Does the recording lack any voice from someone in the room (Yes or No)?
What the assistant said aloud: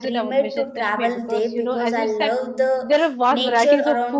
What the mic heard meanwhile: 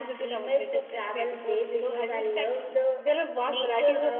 Yes